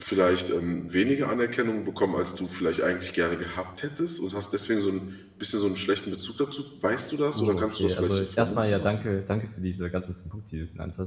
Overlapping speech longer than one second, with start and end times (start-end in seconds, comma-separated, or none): 7.3-9.0